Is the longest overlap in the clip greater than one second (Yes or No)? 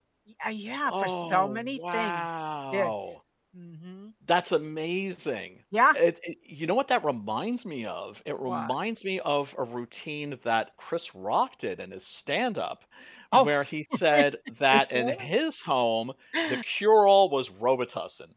Yes